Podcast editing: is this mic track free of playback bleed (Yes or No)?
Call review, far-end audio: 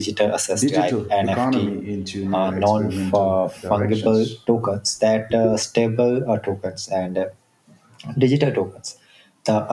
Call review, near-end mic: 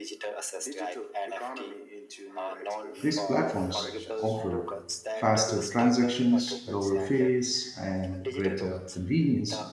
No